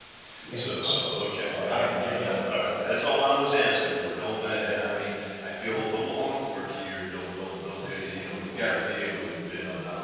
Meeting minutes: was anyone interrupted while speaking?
Yes, from 0.5 s

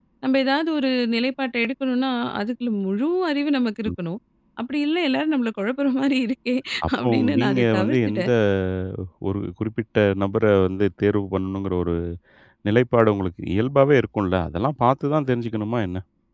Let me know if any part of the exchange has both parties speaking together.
Yes, from 7.0 s

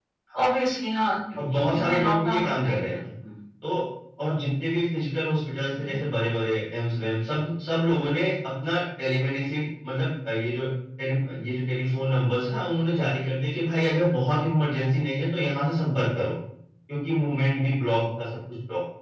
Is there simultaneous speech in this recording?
Yes, from 1.4 s

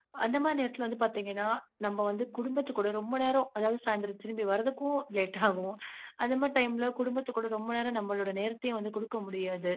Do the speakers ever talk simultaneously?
No

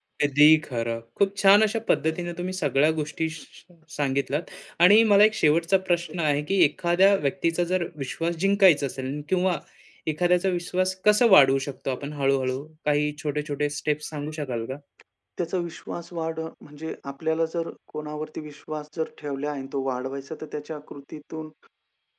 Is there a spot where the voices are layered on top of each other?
No

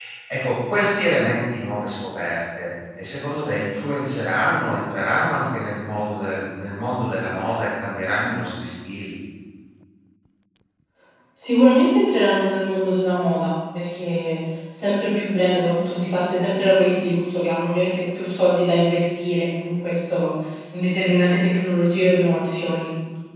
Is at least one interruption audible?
No

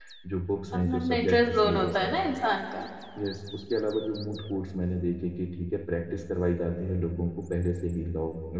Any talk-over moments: Yes, from 0.8 s

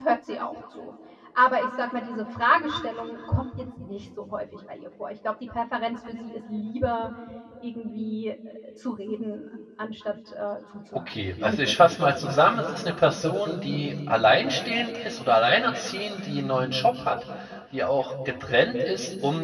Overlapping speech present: Yes, from 11.1 s

